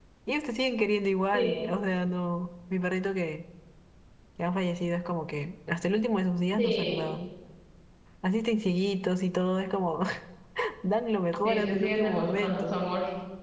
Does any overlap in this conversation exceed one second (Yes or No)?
Yes